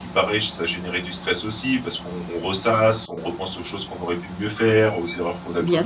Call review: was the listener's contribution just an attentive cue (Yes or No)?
Yes